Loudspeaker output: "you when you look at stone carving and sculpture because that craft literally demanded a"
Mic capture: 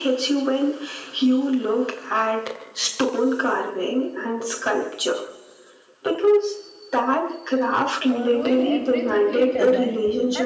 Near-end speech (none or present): present